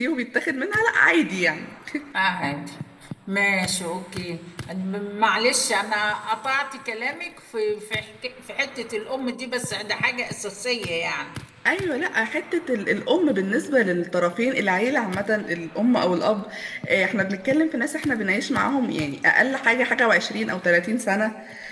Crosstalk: none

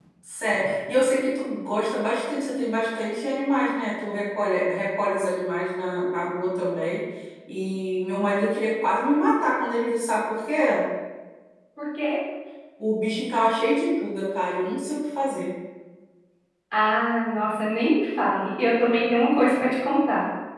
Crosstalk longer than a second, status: none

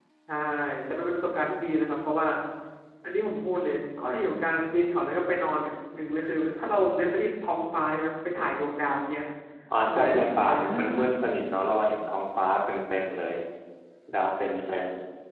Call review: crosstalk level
present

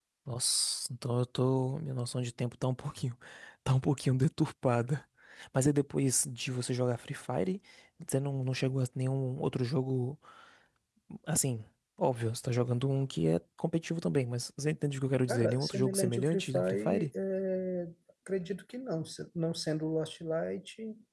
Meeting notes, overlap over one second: present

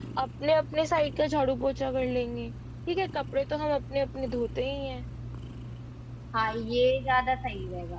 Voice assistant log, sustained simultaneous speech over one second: none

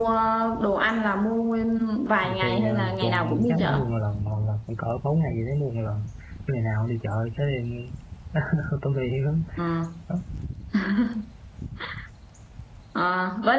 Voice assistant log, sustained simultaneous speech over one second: present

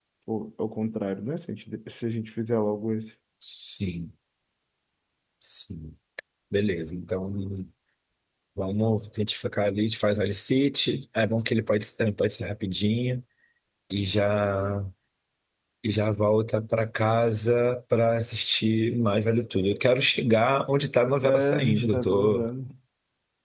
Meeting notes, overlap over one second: present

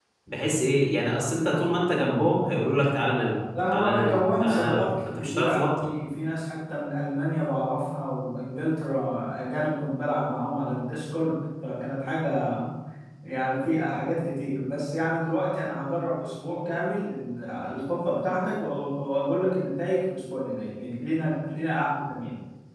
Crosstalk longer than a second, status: present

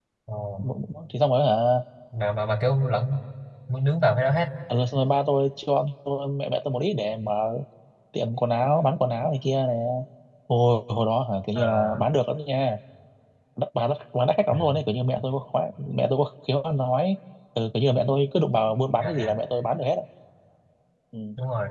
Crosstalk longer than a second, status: none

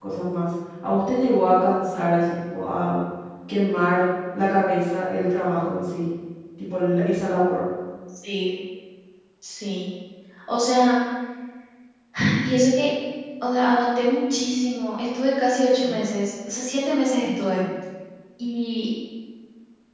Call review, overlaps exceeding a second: none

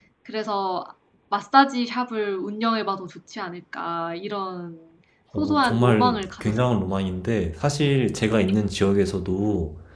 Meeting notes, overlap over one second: present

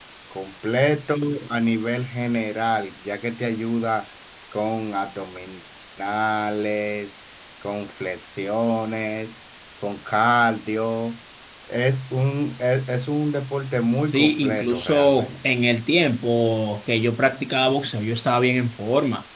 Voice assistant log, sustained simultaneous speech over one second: present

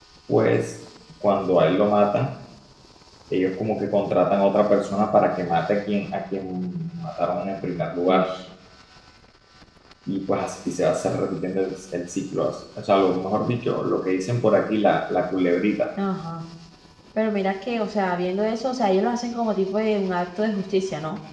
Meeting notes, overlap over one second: none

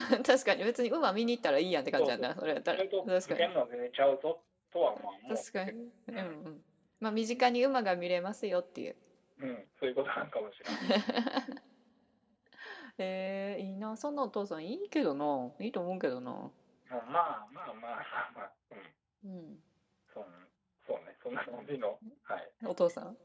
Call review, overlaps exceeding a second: present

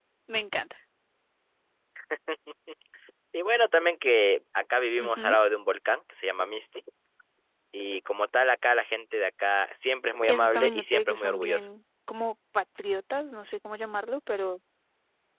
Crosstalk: present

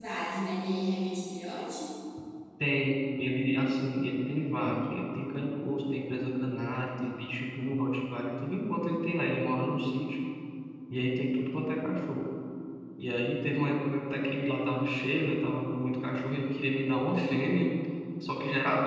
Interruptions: none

